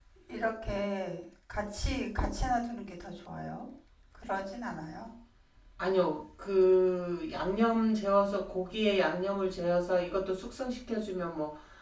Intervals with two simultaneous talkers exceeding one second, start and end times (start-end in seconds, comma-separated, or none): none